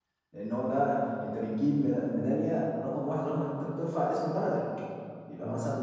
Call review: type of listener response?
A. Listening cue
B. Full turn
A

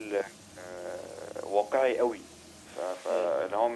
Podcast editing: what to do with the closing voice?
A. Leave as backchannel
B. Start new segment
A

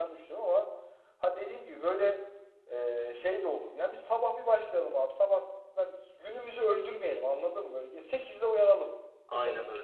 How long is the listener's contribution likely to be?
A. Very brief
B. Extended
B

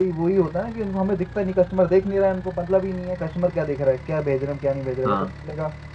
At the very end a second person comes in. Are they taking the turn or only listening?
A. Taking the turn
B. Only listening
B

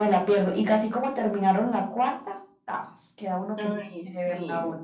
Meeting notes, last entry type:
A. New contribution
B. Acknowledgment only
A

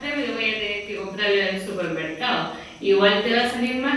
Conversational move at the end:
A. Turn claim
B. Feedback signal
B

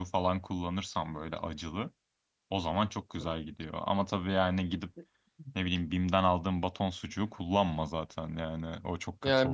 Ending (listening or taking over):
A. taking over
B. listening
A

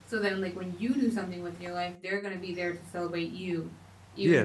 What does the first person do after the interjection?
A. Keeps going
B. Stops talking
B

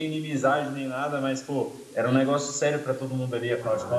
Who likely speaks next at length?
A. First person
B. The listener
B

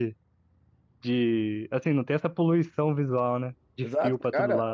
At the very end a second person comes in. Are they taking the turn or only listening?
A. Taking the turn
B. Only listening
A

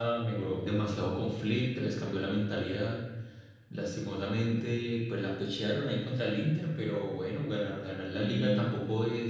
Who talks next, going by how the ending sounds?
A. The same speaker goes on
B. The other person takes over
A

